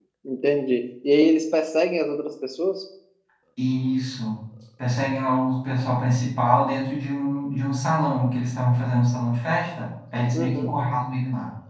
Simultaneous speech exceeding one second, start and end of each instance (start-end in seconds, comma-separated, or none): none